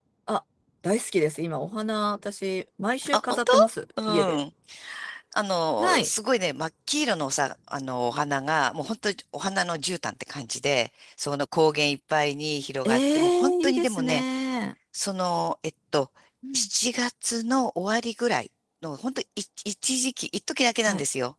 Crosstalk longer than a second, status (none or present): present